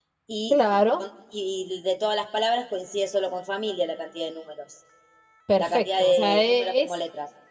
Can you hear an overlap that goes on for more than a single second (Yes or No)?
Yes